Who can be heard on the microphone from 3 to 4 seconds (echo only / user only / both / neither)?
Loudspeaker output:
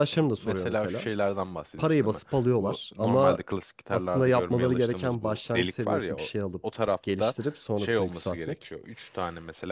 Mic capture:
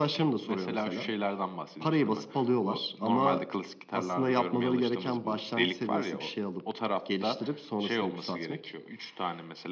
echo only